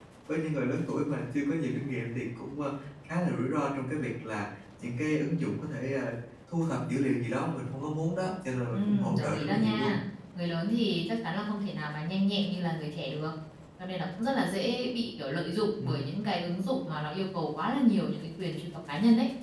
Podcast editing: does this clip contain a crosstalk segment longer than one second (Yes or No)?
Yes